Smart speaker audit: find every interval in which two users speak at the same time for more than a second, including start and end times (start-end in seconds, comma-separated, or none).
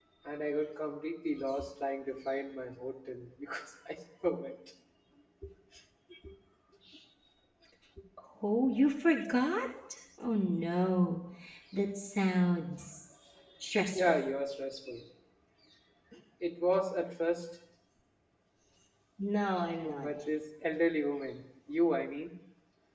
none